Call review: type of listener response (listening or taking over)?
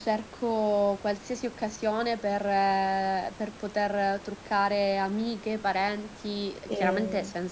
listening